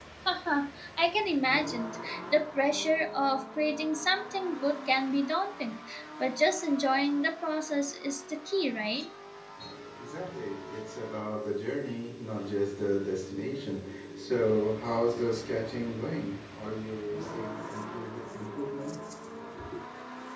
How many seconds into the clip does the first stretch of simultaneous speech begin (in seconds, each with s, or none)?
none